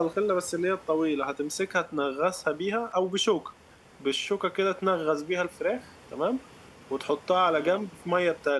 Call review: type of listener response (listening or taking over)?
listening